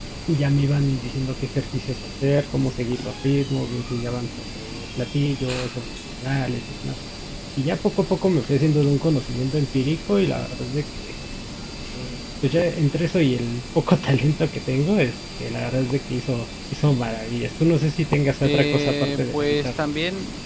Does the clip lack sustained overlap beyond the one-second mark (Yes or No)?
No